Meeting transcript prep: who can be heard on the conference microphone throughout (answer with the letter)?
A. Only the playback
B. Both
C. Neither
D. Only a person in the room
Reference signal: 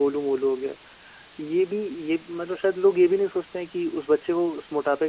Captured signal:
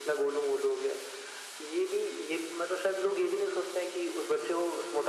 A